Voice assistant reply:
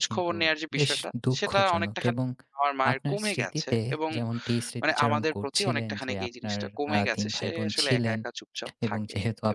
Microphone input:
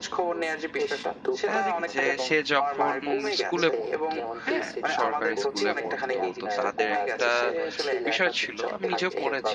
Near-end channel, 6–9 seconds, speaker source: both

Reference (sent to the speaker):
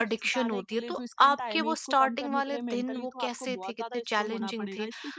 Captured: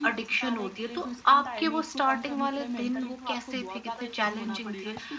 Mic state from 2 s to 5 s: echo only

